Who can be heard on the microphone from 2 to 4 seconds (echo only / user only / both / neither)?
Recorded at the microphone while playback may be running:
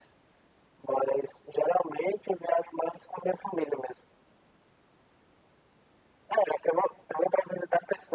echo only